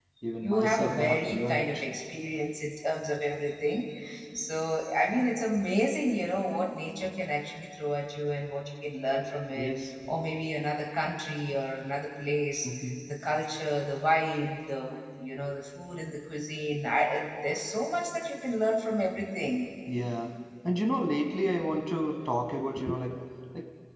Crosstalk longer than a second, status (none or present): present